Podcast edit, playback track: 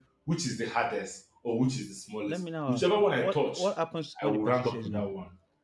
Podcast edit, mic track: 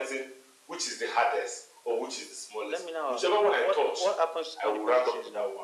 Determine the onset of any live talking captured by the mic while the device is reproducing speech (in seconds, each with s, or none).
none